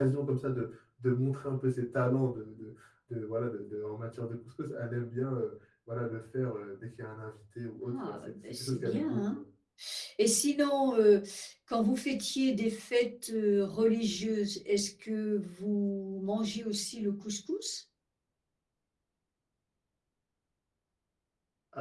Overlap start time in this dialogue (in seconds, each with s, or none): 7.9 s